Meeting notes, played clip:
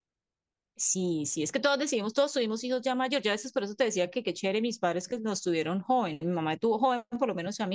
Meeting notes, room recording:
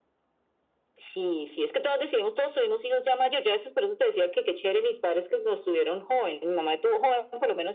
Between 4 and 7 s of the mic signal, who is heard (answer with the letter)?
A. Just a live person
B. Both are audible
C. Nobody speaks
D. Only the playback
D